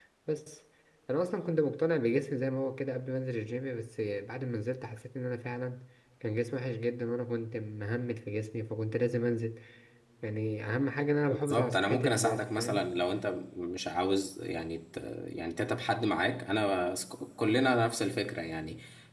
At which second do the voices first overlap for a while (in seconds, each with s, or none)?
11.3 s